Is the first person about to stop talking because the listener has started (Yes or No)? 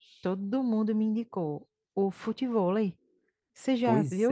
Yes